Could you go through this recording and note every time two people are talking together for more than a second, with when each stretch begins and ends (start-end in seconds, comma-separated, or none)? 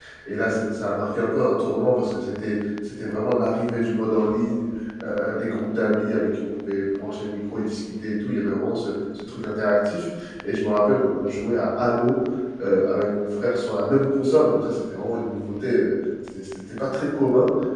none